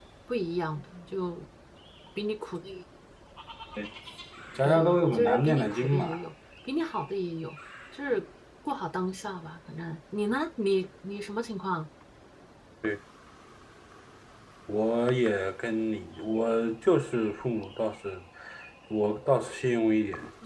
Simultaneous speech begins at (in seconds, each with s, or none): 4.6 s